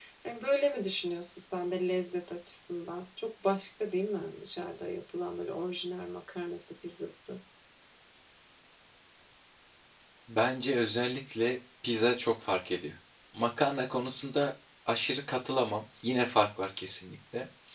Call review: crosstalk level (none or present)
none